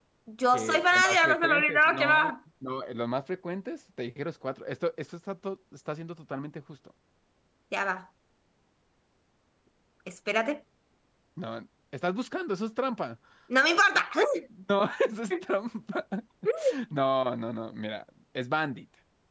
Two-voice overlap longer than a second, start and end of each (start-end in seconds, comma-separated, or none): 0.5-2.3